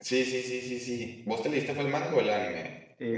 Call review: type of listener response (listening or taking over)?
taking over